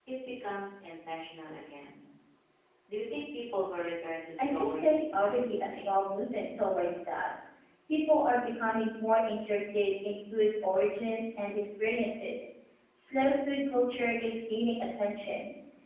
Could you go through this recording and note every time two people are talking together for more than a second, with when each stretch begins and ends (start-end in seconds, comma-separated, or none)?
4.4-5.9